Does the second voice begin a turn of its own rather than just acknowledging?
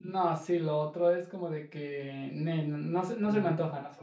Yes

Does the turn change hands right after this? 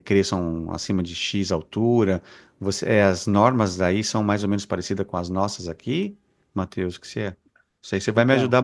No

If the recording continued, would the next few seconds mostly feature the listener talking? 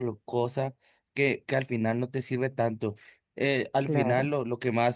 No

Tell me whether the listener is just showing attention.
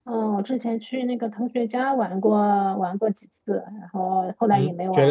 No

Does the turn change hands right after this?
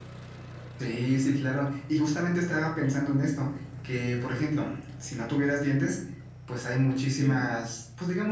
No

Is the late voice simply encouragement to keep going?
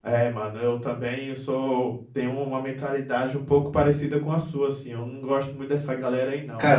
No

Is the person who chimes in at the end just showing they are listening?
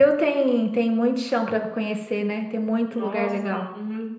No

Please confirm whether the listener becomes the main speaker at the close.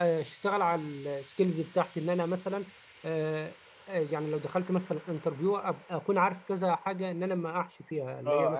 Yes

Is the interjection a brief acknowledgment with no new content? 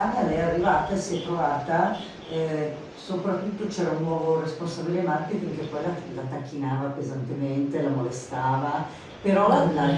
Yes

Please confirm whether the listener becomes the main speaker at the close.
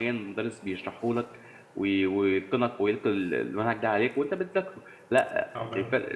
No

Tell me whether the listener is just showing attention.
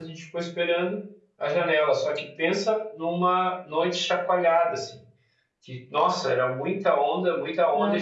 Yes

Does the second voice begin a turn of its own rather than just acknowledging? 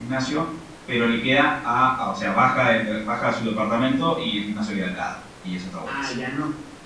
Yes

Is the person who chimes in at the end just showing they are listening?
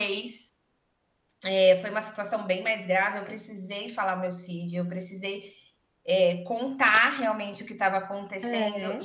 Yes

